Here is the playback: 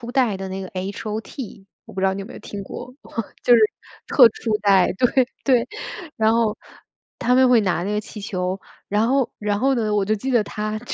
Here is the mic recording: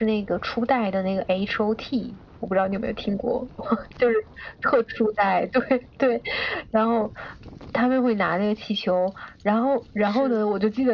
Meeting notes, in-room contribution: present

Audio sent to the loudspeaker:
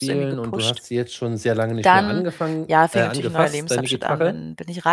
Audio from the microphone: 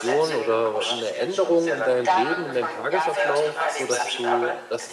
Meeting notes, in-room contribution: present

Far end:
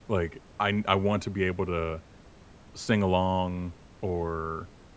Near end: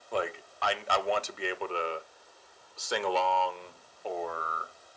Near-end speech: none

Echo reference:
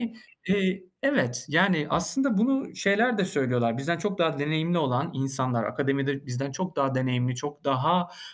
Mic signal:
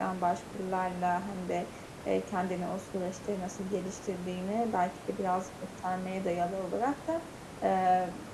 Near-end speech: present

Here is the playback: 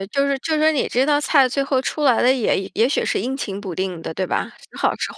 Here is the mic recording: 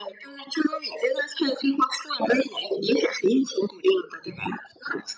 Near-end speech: none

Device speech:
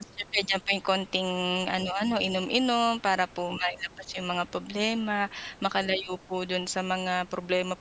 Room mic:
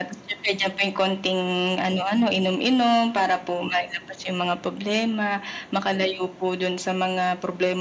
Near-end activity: none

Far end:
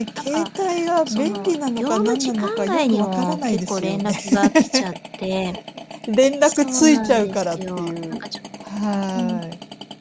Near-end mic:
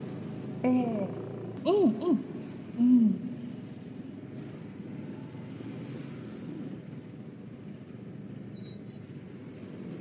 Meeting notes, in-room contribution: present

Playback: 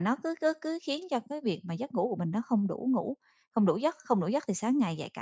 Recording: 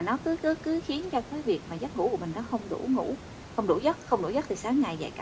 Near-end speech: none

